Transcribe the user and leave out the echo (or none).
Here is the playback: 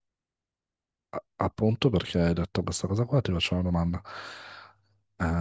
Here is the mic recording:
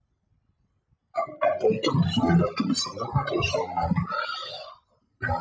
none